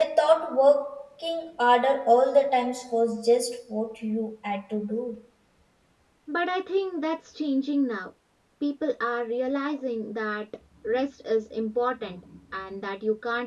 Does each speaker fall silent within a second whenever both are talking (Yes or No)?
Yes